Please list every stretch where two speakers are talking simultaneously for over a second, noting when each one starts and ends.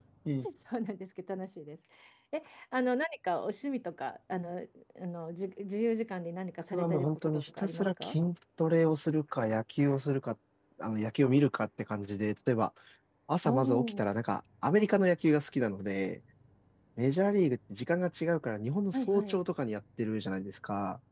6.7-8.2

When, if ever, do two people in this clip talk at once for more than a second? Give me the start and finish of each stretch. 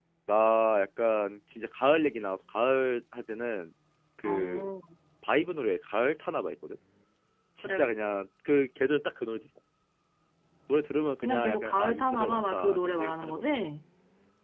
11.2-13.4

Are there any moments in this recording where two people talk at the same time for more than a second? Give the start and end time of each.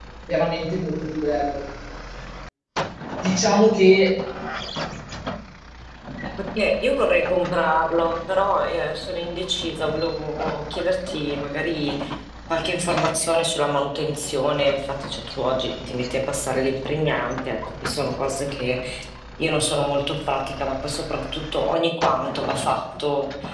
none

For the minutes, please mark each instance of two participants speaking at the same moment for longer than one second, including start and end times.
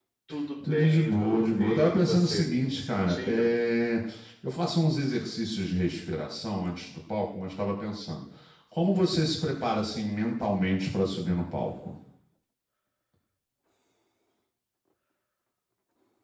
0.6-3.5

